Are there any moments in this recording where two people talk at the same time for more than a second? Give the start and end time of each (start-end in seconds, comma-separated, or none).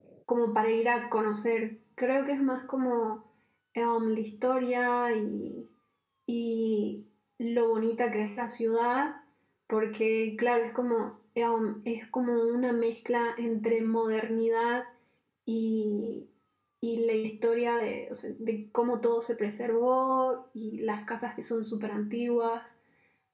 none